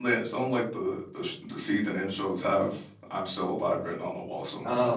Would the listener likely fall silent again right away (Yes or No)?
No